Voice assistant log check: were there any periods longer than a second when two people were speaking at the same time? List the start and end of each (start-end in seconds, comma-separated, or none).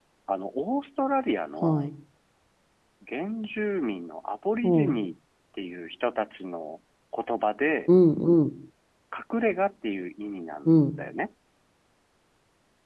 none